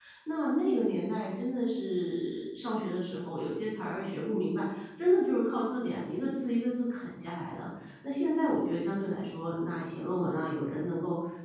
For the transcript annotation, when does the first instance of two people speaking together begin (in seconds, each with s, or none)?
none